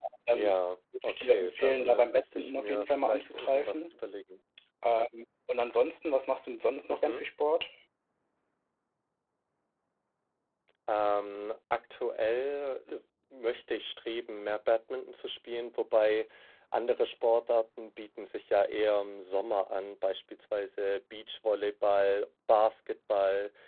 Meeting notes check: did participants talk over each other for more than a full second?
Yes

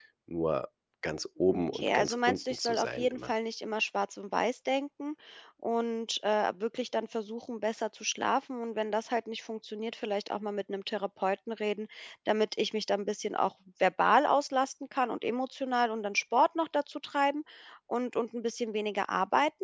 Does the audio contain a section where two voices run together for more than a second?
Yes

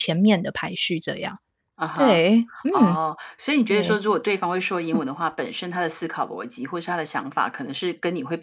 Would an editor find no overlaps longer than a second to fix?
Yes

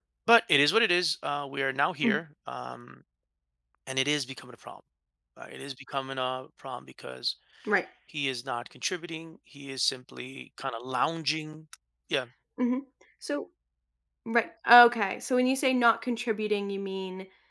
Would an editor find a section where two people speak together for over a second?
No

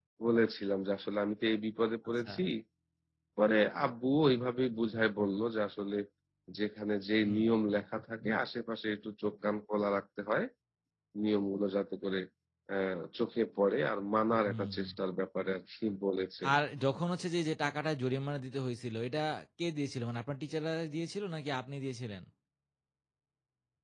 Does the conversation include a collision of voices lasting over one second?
No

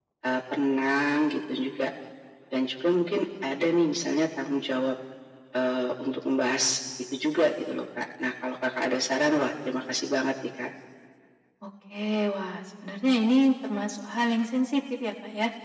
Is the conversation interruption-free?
Yes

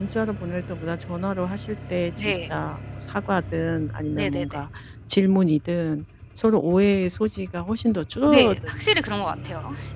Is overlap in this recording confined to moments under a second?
No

